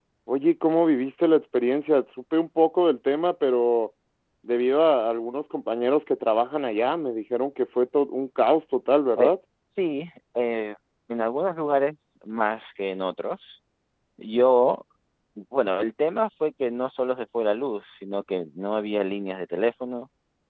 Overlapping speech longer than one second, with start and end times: none

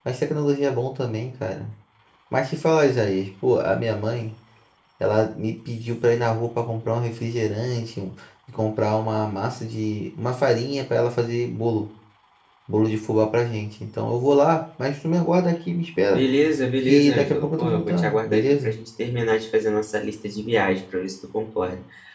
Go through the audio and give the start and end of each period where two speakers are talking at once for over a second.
16.9-18.8

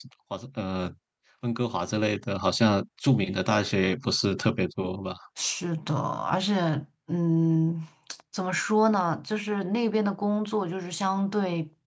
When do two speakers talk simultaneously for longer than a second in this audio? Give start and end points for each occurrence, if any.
none

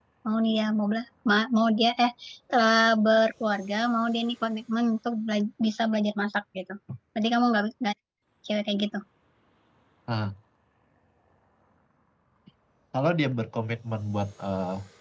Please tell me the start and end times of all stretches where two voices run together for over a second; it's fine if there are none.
none

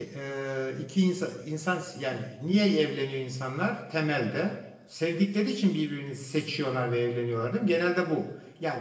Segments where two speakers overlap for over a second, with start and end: none

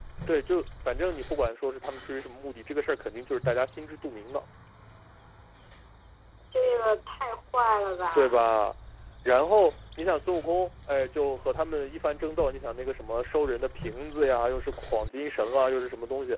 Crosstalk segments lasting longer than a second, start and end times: none

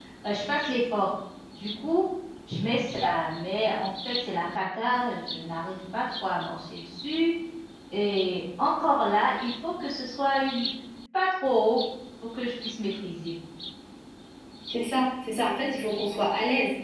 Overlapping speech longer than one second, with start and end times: none

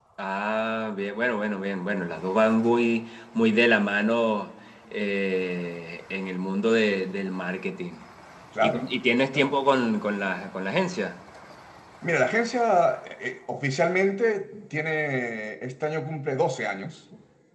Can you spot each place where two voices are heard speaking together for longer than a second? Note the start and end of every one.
none

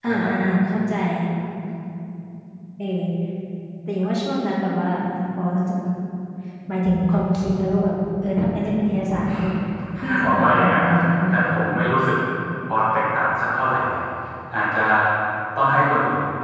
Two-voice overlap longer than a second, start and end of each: 10.2-11.6

